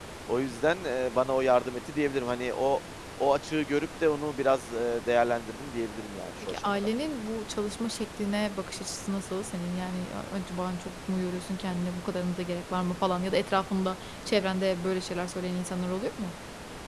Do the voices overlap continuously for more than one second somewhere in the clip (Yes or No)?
No